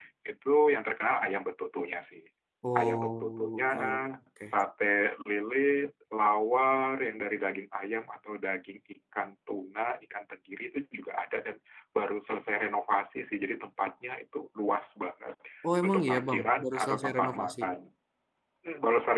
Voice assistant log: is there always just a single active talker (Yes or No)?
No